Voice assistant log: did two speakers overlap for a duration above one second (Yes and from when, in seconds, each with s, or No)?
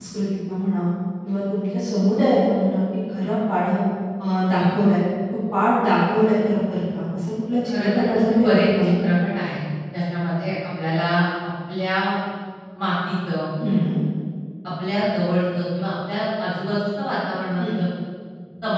Yes, from 7.6 s